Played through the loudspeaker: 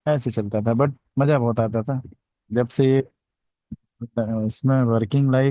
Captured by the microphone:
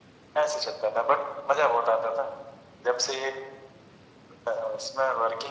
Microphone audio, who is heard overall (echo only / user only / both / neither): echo only